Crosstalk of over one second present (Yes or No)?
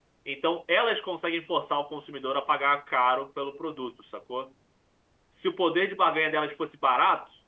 No